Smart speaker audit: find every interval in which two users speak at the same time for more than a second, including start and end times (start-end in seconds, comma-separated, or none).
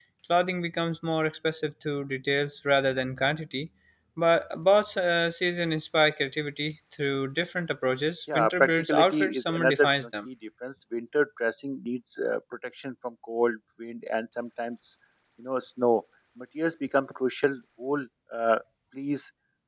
8.3-10.3